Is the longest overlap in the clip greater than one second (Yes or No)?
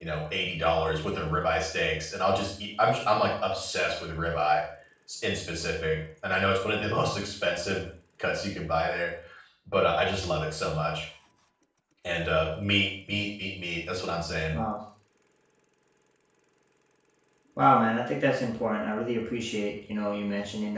No